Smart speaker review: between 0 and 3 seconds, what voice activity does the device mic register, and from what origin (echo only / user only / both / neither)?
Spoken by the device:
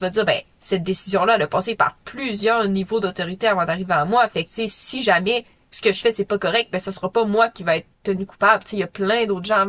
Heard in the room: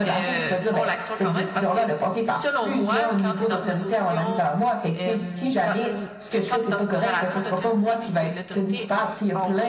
both